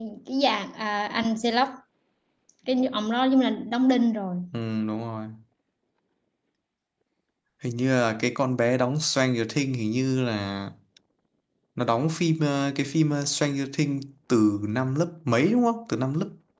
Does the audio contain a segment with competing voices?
No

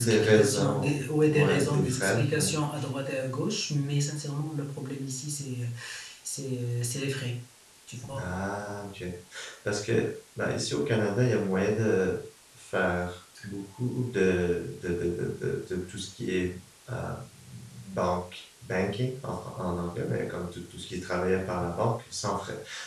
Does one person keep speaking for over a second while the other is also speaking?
Yes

